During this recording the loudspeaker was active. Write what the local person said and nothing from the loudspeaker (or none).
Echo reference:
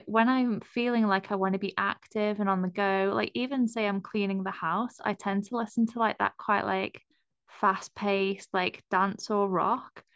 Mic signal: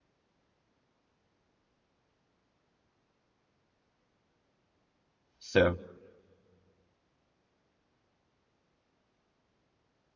So